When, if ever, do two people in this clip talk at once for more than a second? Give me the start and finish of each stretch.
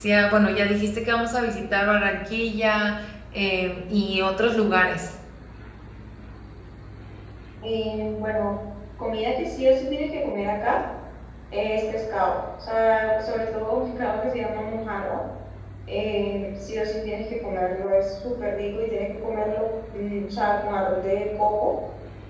none

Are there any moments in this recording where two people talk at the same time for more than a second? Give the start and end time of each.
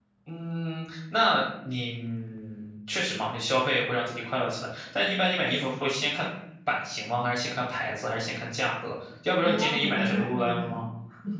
9.4-10.9

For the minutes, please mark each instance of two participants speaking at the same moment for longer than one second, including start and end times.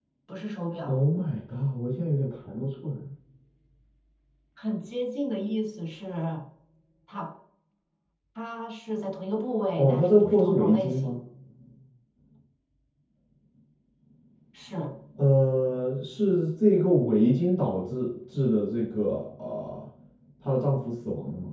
9.8-11.2

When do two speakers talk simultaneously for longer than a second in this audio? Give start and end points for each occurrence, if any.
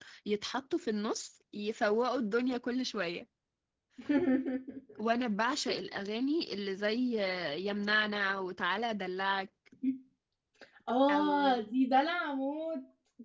none

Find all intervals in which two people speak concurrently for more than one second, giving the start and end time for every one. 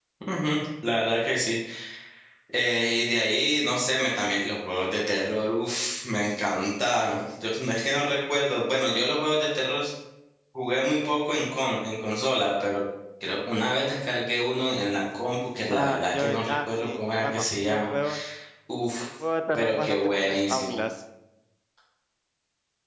15.7-17.9, 19.5-20.8

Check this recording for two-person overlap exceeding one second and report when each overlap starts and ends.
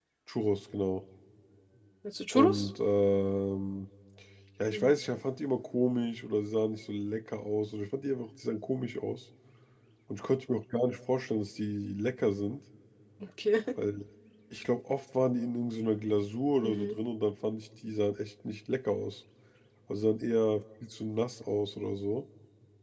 none

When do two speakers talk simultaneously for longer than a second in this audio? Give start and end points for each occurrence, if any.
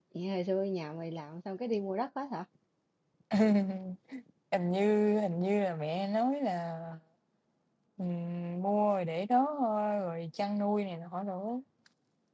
none

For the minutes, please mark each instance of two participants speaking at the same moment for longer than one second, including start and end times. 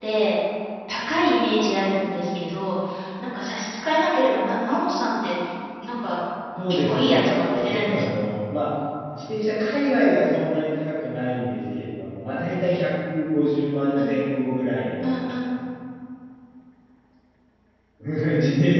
6.7-8.1

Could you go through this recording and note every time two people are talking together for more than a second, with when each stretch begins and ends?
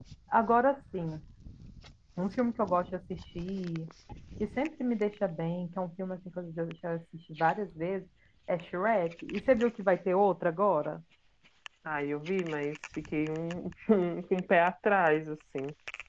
none

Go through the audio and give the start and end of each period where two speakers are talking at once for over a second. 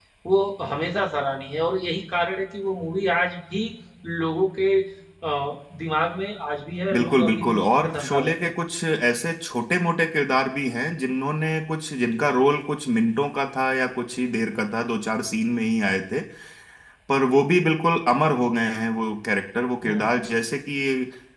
6.9-8.3

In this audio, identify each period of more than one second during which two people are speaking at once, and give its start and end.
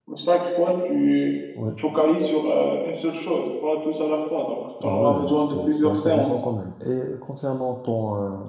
4.8-6.3

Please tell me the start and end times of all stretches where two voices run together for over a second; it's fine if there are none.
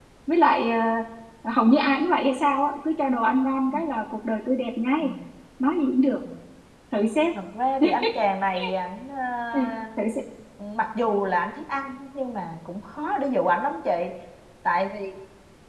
none

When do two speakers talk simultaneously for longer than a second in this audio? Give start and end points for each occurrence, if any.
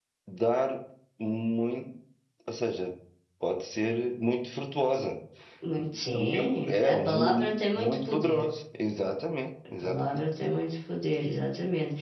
6.1-8.5

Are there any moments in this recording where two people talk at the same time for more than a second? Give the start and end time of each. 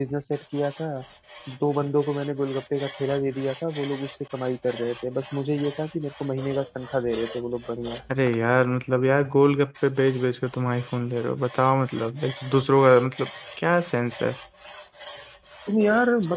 none

